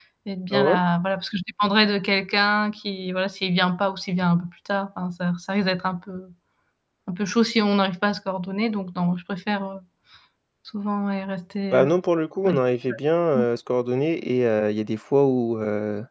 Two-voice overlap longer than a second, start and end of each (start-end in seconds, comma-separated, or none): none